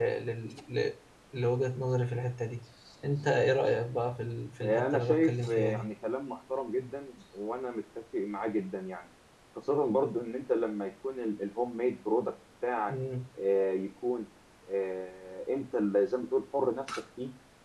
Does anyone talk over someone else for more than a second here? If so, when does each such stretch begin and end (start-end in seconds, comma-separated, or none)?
4.6-5.9